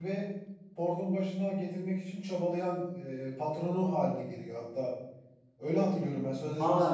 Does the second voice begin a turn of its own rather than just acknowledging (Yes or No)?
Yes